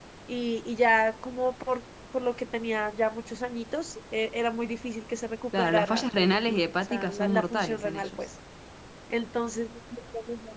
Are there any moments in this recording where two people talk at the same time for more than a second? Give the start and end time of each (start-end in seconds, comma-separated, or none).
5.6-8.1